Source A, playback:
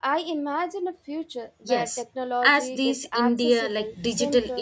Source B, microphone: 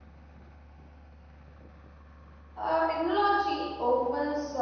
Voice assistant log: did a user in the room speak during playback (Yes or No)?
Yes